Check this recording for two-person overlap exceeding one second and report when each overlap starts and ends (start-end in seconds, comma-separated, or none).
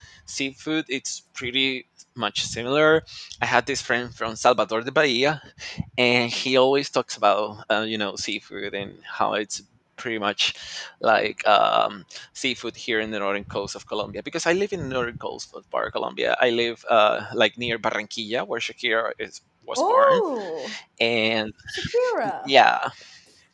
none